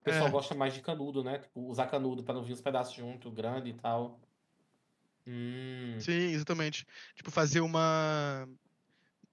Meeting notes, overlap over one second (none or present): none